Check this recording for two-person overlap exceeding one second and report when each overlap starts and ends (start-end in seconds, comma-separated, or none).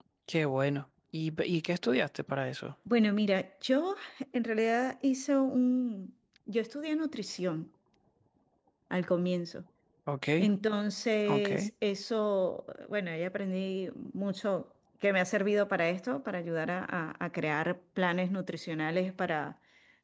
none